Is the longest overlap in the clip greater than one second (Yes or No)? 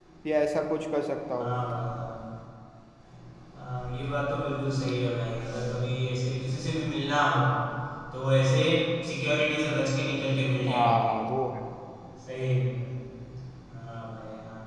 No